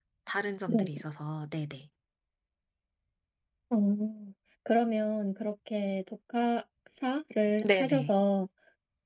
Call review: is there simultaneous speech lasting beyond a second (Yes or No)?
No